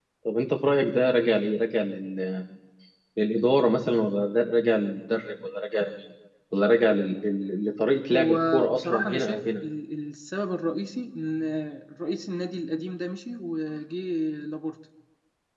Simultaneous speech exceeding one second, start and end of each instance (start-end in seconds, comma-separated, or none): 8.1-9.6